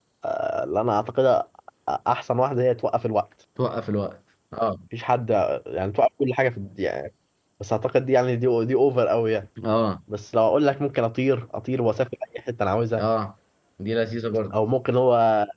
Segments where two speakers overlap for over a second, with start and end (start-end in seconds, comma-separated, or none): none